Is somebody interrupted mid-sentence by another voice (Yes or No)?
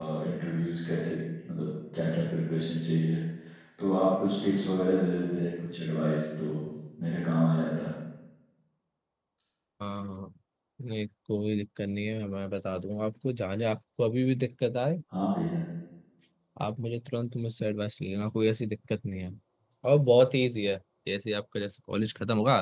No